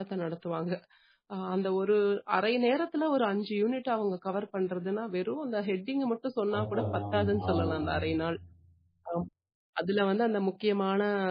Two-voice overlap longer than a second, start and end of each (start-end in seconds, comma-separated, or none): 6.5-8.0